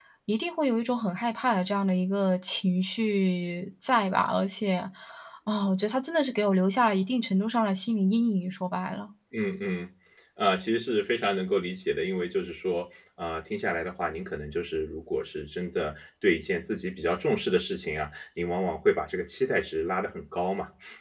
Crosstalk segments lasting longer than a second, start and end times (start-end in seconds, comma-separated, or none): none